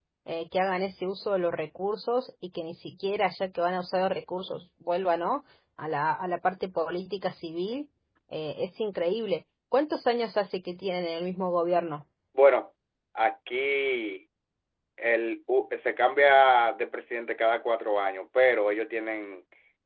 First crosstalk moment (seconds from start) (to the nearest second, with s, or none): none